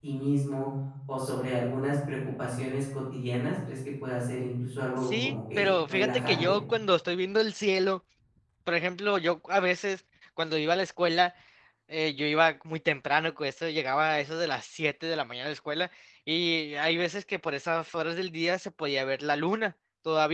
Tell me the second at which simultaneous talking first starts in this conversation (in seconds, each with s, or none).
5.0 s